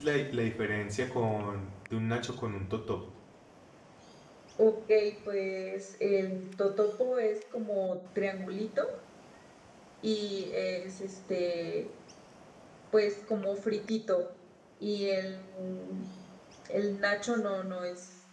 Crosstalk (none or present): none